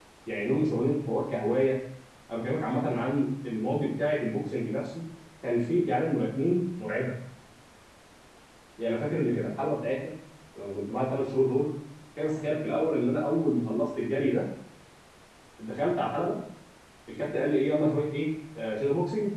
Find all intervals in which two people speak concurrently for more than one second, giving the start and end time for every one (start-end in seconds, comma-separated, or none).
none